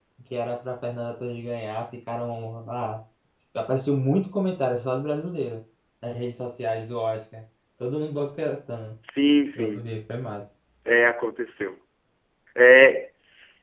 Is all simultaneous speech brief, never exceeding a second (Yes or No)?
Yes